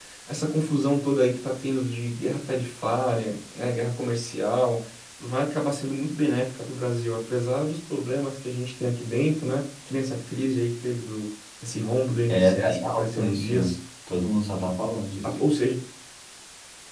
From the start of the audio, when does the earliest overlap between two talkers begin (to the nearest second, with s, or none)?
12 s